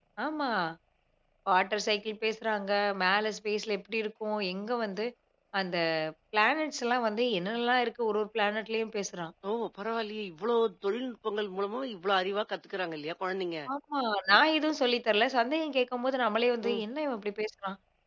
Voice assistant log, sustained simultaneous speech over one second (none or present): none